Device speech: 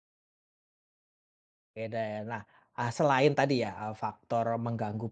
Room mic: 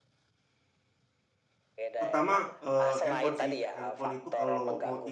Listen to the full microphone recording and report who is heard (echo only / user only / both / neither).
both